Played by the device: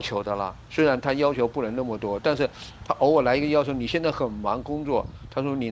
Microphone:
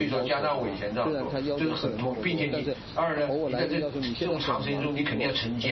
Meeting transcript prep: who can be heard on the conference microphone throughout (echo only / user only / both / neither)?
both